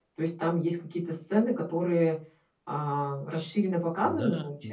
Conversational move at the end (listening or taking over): taking over